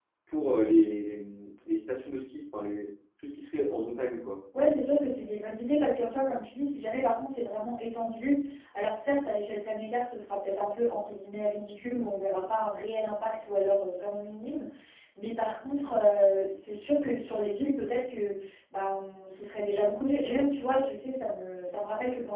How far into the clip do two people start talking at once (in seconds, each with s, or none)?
none